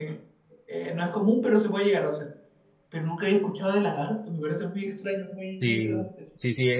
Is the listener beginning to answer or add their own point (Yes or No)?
Yes